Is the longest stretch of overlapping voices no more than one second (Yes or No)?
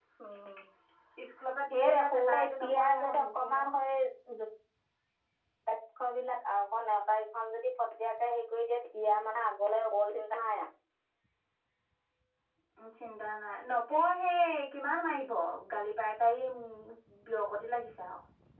No